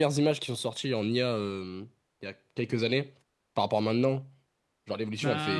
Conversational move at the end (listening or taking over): taking over